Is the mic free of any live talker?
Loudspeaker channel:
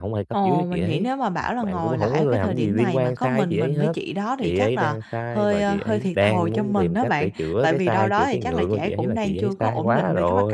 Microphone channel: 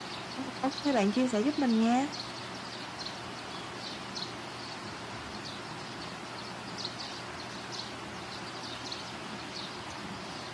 No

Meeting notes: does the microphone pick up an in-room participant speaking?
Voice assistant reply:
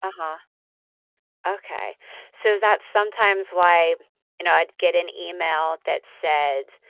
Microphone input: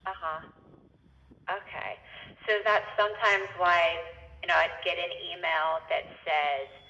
No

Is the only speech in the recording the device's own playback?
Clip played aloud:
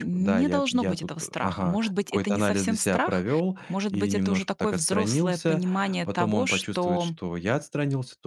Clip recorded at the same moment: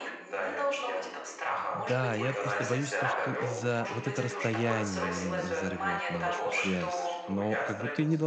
No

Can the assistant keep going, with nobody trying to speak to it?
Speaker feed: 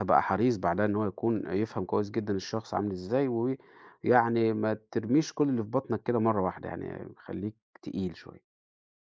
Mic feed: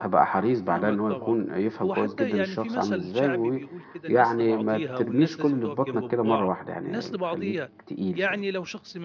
No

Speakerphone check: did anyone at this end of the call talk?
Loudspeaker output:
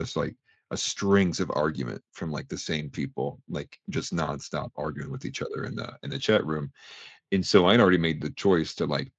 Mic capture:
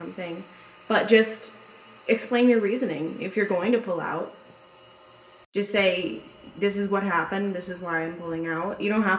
Yes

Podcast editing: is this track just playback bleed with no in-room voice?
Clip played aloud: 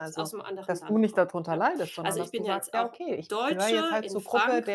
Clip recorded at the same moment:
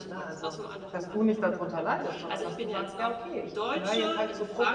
Yes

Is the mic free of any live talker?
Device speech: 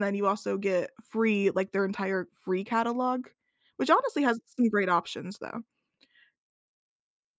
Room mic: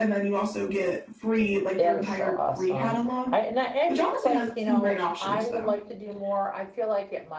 No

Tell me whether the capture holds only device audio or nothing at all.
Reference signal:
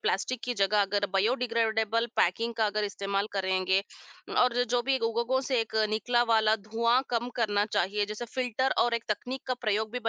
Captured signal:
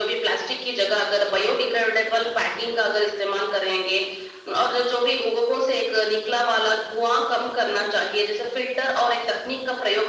Yes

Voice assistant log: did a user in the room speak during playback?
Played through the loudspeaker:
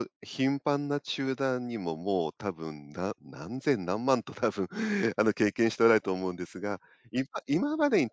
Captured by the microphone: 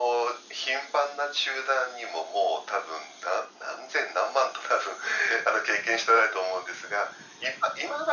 No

